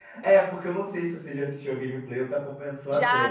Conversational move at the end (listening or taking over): taking over